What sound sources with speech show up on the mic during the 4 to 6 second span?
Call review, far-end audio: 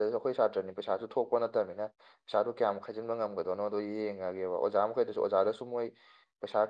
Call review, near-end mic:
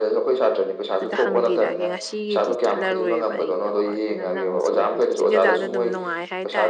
both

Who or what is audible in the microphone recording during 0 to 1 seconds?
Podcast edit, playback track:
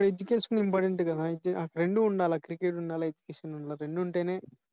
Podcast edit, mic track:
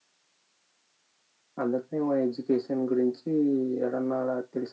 neither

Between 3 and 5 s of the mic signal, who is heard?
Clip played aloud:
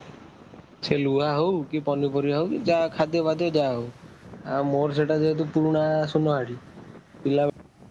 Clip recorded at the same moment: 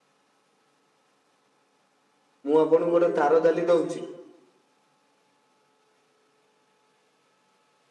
user only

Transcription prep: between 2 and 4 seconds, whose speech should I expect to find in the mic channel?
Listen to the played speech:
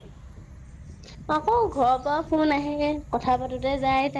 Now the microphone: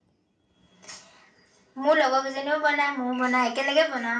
user only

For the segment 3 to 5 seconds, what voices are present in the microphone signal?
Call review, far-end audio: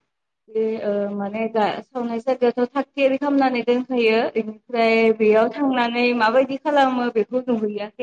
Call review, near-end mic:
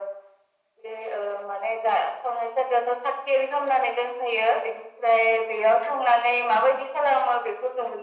echo only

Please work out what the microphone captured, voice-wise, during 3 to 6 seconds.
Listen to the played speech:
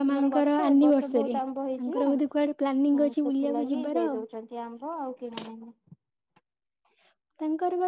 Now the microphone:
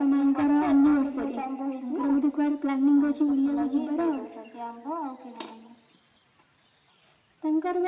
echo only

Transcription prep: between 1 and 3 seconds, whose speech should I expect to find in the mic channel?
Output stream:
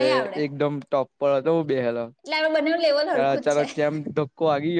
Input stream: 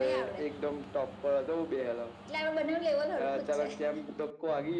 echo only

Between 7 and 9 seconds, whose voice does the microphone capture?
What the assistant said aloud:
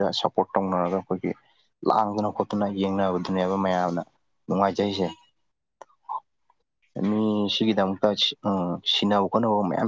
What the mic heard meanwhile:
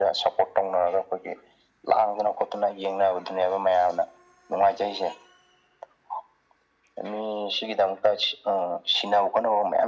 echo only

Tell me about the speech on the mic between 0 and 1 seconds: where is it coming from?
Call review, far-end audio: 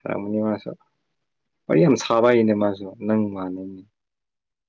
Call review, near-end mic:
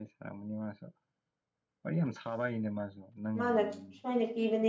echo only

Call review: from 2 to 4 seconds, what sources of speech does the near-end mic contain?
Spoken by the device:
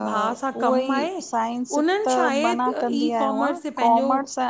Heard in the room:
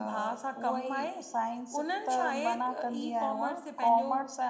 echo only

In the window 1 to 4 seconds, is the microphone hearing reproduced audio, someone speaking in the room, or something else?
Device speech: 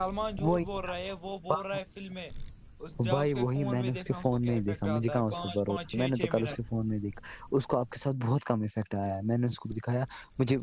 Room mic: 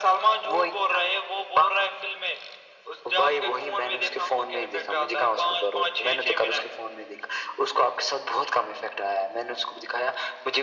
echo only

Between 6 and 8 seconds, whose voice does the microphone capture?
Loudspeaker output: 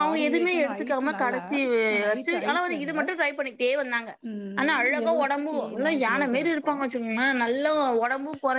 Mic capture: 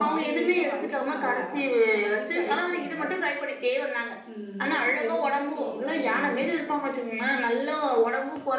echo only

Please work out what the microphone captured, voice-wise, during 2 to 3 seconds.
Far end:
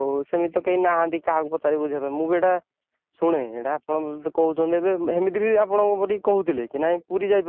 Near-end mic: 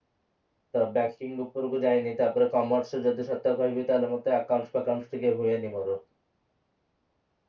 user only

